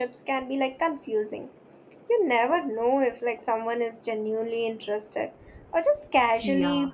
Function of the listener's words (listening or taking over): taking over